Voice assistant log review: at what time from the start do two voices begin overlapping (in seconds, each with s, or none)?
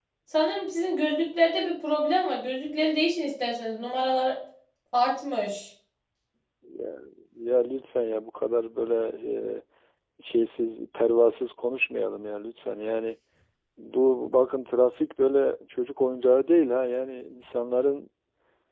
none